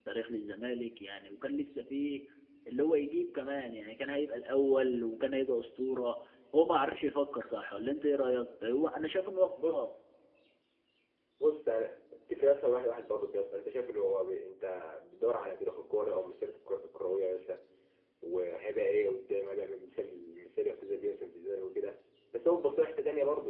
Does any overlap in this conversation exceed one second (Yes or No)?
No